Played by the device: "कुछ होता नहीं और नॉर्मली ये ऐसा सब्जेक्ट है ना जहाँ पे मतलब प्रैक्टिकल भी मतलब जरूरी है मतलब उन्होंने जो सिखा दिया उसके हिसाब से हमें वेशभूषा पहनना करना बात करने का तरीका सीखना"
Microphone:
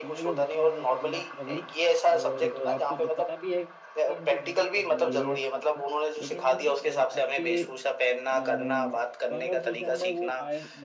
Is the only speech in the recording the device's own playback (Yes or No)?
No